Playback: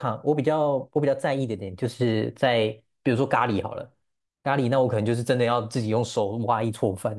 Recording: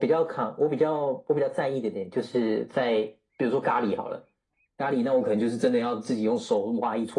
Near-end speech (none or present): none